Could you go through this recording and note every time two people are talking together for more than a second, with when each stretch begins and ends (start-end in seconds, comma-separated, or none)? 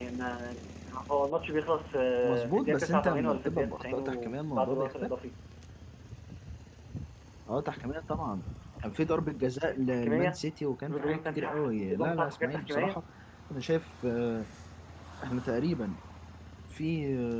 2.2-5.1, 10.9-13.0